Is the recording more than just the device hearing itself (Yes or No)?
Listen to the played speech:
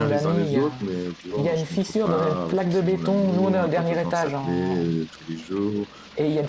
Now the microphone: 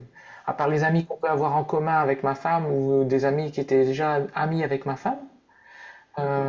Yes